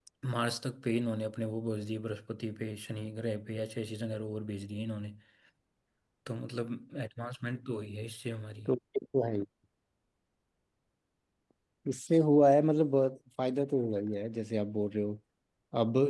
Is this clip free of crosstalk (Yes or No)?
Yes